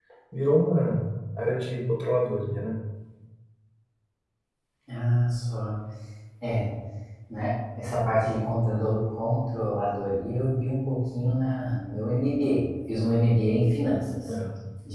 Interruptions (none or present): none